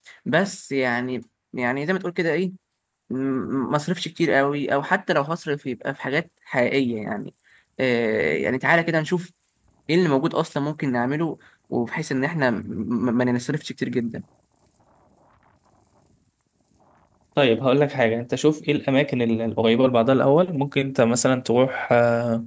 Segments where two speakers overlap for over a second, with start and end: none

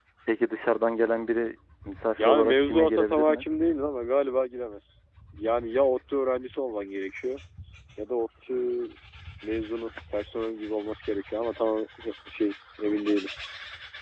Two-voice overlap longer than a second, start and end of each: 2.2-3.4

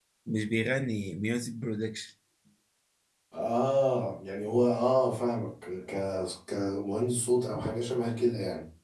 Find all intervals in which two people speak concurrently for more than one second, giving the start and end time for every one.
none

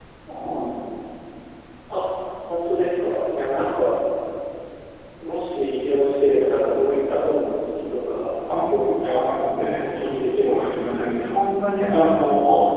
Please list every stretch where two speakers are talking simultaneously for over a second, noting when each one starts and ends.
8.5-11.4

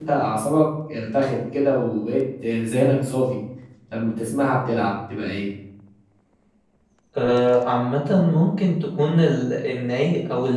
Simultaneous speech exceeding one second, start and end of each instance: none

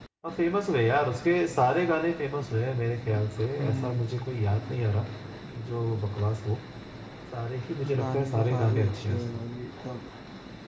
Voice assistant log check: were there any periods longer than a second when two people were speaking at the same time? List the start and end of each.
8.0-9.4

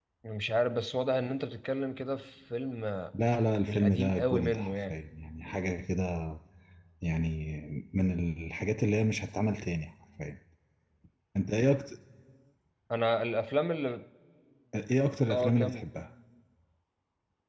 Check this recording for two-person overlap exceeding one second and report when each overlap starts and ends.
3.6-4.9

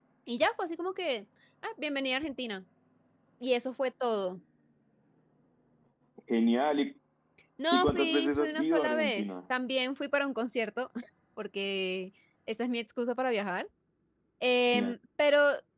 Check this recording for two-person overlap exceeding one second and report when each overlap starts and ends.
7.7-9.2

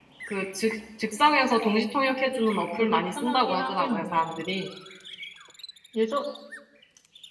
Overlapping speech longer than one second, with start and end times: 2.5-4.4

